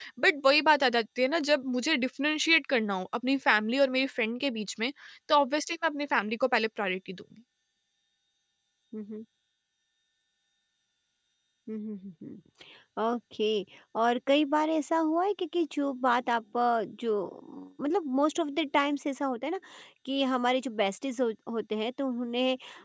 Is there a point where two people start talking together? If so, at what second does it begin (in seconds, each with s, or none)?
none